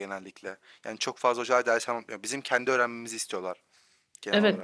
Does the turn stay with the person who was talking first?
No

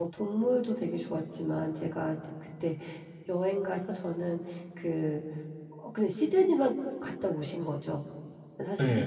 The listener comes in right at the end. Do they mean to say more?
No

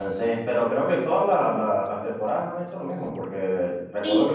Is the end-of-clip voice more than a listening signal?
No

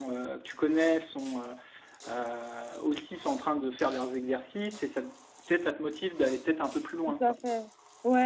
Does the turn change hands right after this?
Yes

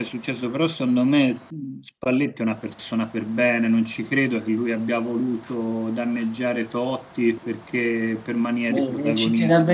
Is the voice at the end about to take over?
Yes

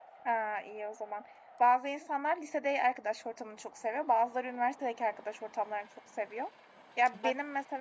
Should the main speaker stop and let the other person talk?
No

